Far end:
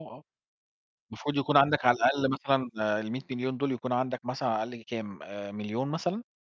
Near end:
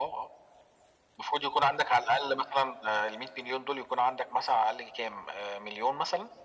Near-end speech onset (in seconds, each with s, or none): none